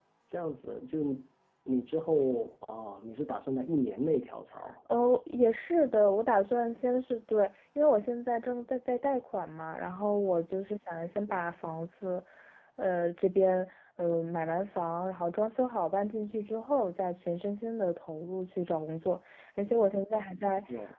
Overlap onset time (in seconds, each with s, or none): none